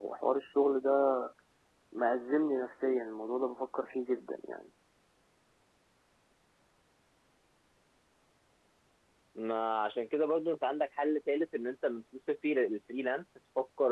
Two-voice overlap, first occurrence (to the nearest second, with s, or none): none